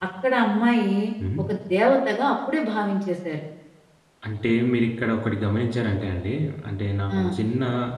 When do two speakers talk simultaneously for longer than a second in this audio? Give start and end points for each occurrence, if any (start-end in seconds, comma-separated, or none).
none